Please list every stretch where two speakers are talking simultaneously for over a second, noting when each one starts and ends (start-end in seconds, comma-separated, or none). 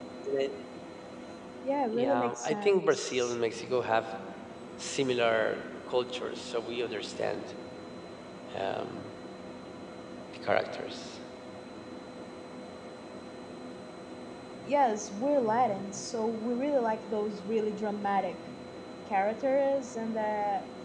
1.9-3.4